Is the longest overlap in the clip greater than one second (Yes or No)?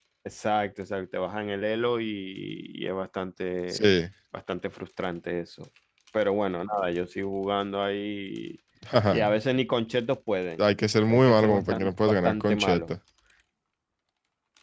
Yes